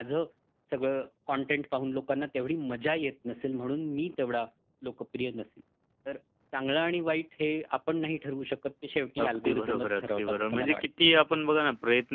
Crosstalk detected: Yes, from 9.2 s

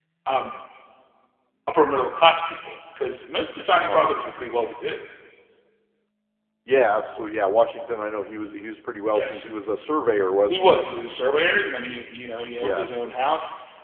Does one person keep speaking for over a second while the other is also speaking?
No

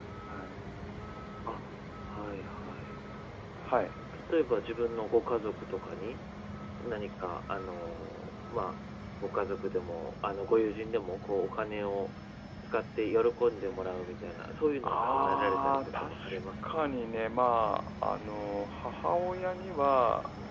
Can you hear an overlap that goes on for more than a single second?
Yes, from 14.8 s

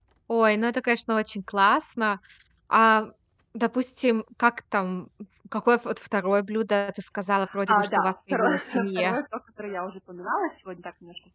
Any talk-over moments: Yes, from 7.4 s

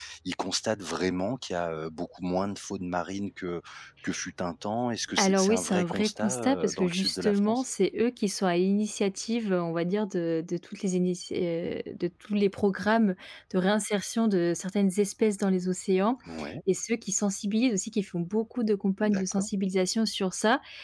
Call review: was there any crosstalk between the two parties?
Yes, from 5.2 s

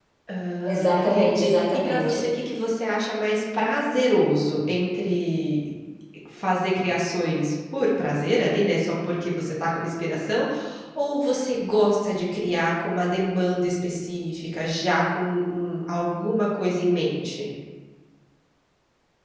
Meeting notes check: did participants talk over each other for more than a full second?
Yes, from 0.7 s

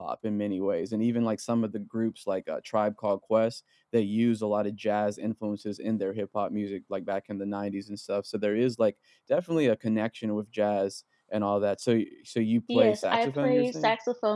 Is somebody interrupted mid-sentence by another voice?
Yes, from 12.7 s

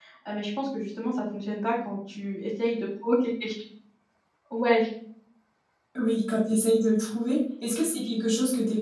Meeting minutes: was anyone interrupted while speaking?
No

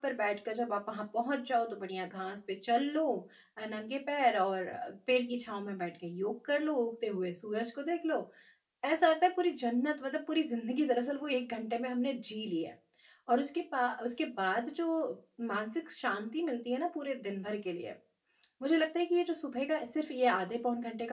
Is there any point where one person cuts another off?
No

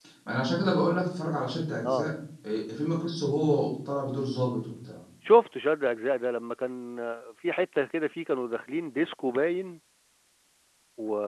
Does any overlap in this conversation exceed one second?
No

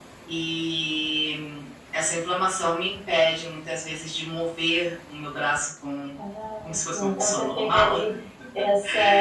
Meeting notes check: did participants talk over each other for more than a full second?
Yes, from 6.6 s

